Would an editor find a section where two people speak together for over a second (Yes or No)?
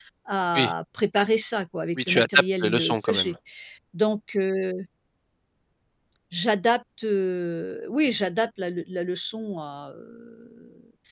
Yes